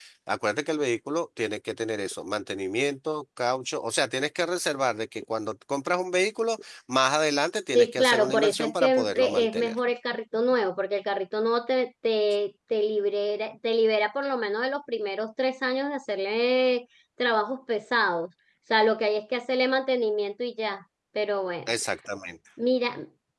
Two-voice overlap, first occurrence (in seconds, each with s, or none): 7.8 s